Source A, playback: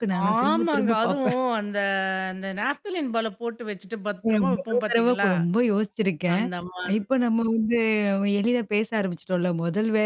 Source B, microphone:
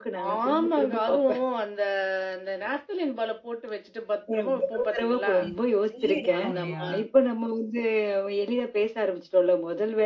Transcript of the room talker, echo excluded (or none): ஏன்னா நெறைய எடுக்குறோம் இல்லையா?